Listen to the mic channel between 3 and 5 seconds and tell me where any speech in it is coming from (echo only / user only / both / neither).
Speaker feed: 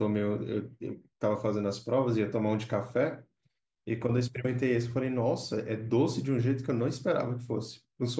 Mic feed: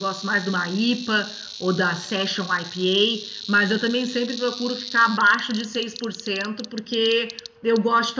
user only